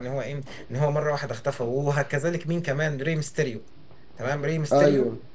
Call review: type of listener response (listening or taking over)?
listening